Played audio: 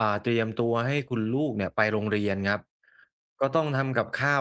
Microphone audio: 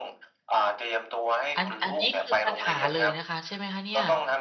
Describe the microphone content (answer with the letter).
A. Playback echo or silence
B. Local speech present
B